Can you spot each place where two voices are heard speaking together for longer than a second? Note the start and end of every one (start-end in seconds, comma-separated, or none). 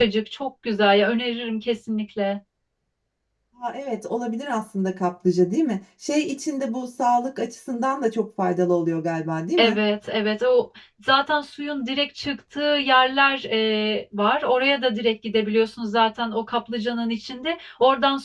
none